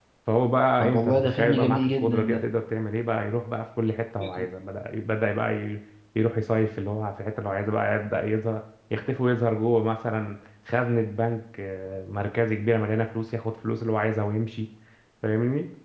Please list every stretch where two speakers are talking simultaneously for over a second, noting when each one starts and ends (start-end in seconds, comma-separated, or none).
0.8-2.4